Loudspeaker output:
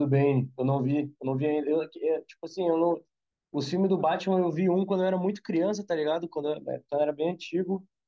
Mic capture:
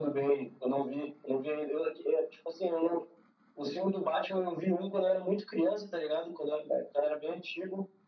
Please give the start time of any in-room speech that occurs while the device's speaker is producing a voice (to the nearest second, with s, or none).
none